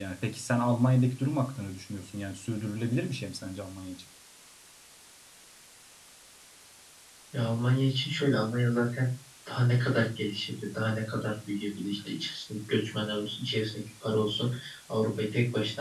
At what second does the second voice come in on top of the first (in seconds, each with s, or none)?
none